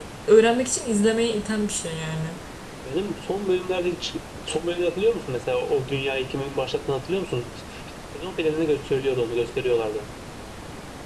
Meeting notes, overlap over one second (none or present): none